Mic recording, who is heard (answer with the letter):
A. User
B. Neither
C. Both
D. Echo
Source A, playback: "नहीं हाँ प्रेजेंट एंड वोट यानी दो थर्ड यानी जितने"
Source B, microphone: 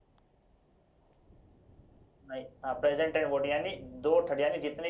D